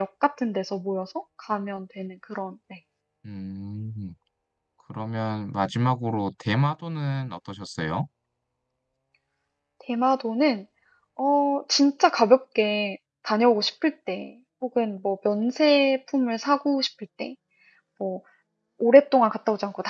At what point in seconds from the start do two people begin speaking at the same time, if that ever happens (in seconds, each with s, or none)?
none